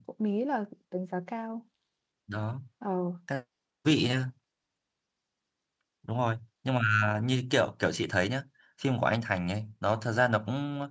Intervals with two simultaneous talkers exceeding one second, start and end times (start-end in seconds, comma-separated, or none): none